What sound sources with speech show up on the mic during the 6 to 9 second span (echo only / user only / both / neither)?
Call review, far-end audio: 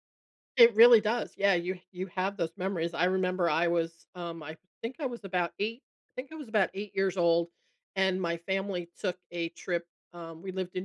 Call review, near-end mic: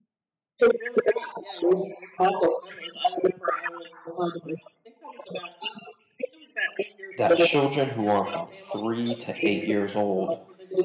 both